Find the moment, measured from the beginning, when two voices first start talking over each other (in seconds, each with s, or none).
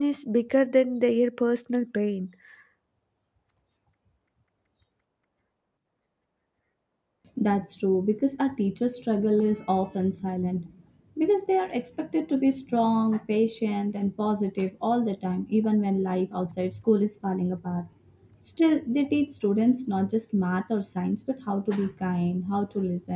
none